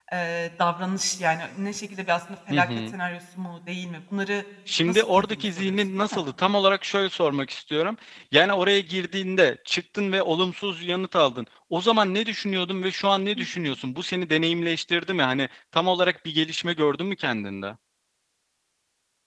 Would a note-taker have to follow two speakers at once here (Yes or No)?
Yes